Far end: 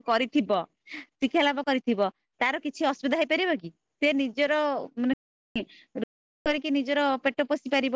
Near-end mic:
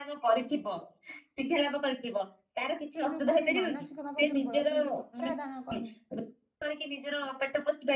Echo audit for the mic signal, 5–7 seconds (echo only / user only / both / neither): both